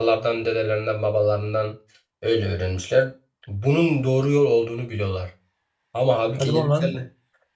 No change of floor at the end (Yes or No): Yes